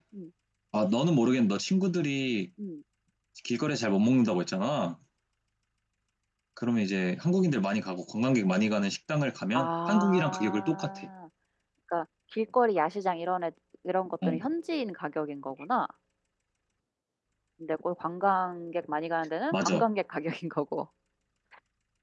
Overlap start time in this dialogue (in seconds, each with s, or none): 9.5 s